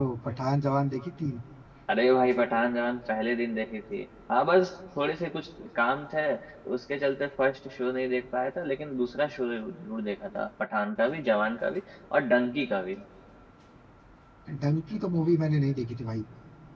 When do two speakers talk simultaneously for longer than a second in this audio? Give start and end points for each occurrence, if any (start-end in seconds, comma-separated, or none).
none